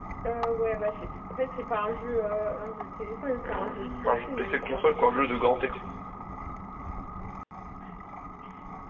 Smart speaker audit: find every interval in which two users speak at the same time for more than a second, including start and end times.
3.4-4.9

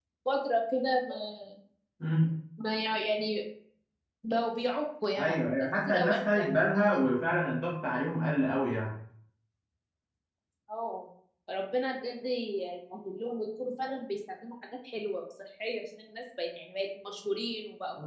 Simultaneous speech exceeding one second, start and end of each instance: 5.2-6.7

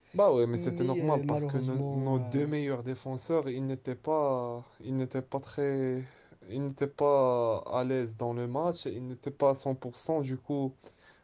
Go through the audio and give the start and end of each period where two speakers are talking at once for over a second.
0.5-2.5

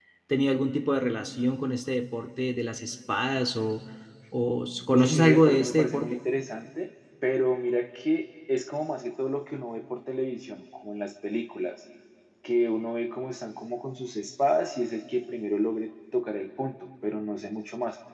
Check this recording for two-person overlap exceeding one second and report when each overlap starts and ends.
4.9-6.2

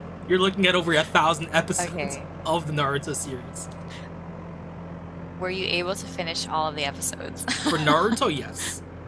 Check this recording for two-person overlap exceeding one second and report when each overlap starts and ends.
none

